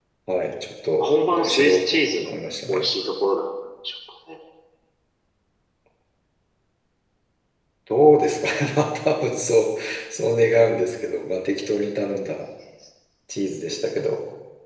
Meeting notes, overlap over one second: present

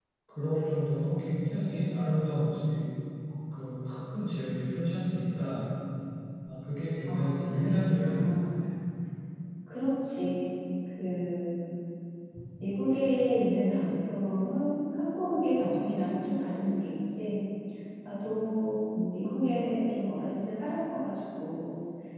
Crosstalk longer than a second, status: present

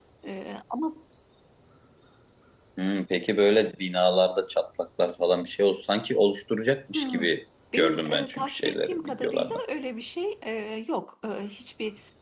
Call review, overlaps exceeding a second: present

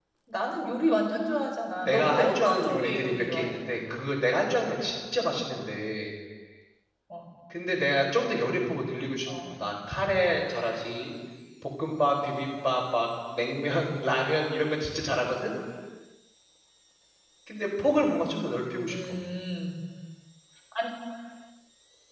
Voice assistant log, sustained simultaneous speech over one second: present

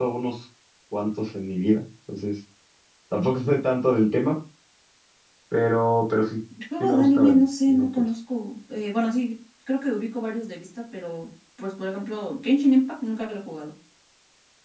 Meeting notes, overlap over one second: present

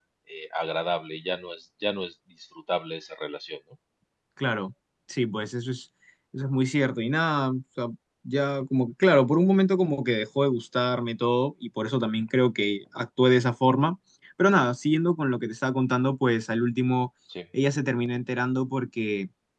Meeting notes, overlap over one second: none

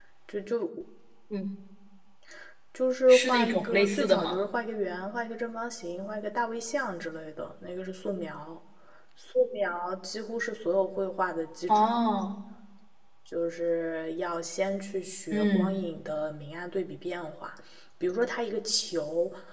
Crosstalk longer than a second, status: present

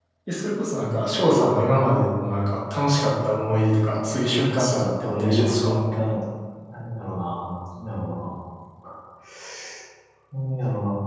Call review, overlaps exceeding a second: present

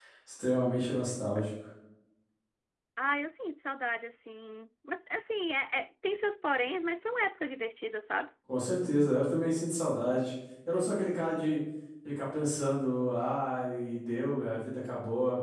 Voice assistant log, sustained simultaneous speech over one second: none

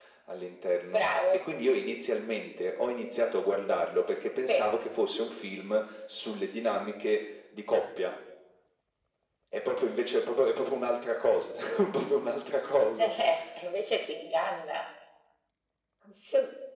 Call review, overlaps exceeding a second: none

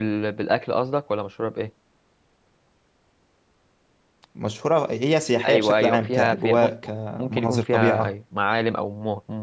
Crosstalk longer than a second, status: present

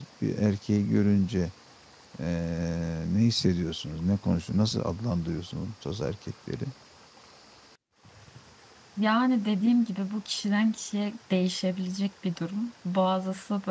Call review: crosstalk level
none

